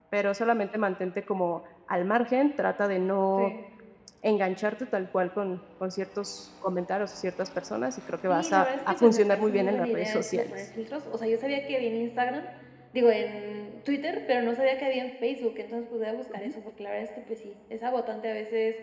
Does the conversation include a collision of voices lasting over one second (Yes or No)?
Yes